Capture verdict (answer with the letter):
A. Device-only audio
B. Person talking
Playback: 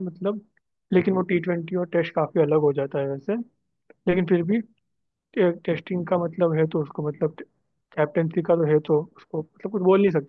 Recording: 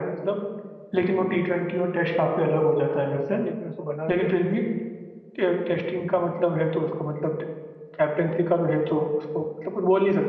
B